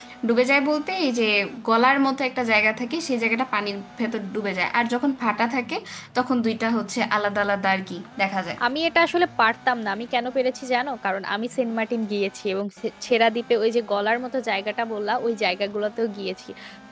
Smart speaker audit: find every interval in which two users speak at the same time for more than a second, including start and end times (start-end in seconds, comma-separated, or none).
none